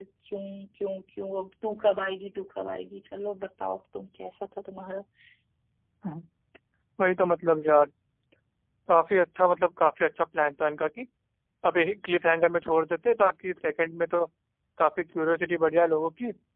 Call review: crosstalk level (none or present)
none